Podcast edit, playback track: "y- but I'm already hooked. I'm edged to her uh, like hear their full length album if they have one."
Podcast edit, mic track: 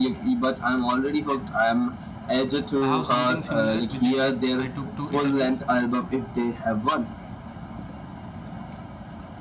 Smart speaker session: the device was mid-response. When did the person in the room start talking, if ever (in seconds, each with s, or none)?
2.8 s